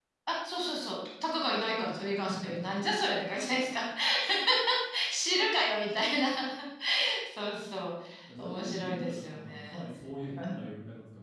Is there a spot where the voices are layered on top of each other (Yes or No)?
Yes